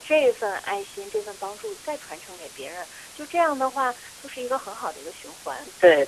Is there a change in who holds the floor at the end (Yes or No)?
Yes